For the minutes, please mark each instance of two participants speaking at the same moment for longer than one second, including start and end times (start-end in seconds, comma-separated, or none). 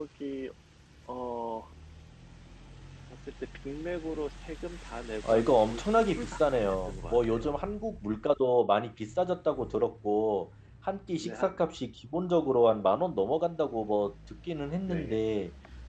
5.3-7.6